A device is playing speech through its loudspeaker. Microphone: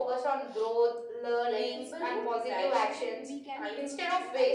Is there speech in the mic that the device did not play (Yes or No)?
Yes